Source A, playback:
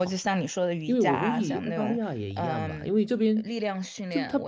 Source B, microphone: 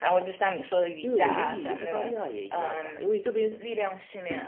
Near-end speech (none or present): present